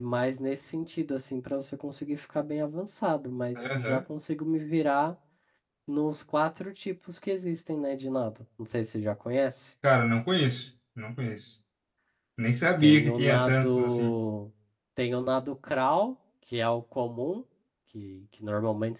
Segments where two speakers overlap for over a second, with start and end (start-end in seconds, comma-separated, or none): 12.8-14.2